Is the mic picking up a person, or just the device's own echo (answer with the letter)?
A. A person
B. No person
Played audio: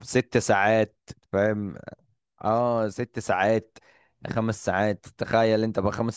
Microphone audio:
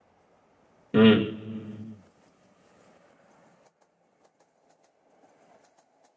A